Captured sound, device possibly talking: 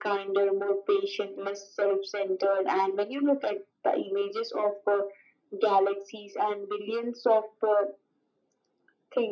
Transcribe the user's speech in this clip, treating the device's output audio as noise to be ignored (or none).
none